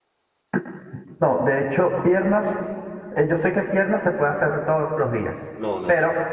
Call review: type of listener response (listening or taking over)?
taking over